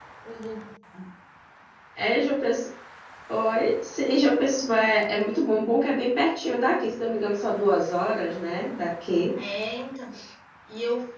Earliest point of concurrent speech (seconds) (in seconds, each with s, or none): none